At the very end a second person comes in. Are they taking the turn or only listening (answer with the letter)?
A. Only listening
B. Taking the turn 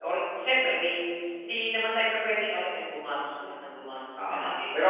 B